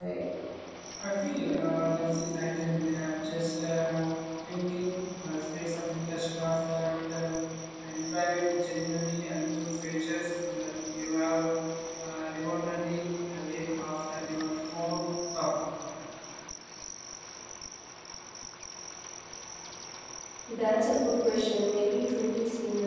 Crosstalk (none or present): none